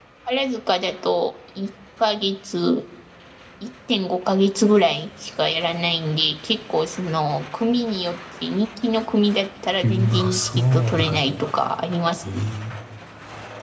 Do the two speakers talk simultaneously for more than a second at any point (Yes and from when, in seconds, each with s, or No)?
Yes, from 9.8 s